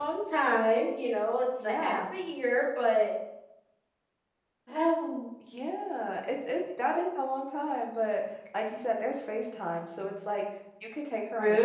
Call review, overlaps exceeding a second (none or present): none